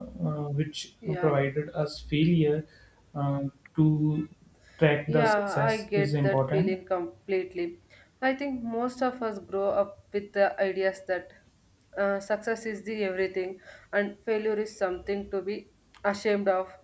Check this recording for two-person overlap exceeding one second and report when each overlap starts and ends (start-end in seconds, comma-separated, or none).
5.1-6.7